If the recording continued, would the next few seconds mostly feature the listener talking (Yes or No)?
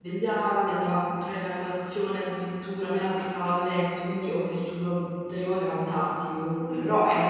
No